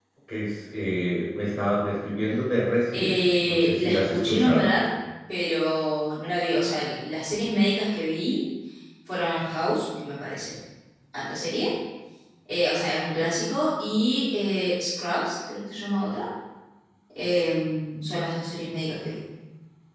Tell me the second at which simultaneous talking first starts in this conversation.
3 s

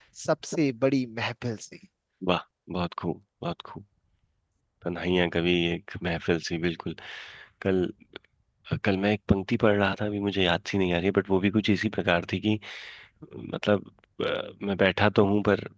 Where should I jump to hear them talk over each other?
none

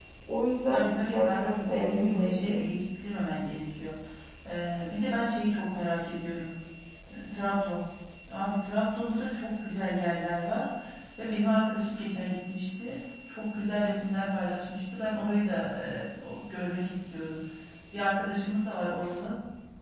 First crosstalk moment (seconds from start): 1 s

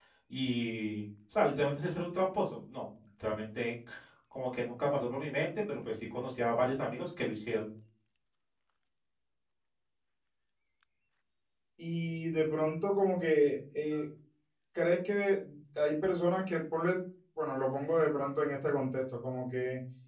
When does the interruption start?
none

